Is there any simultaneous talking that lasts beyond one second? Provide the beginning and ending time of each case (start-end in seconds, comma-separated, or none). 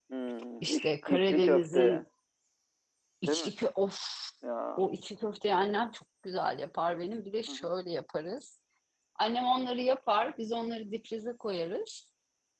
0.6-2.0